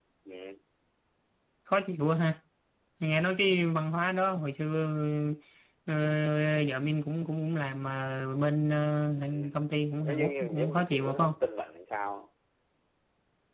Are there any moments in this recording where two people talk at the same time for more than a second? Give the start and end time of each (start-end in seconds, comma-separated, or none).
10.0-11.3